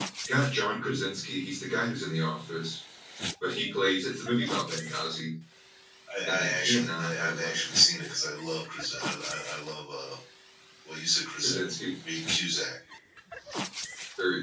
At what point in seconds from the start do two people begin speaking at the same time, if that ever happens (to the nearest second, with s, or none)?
6 s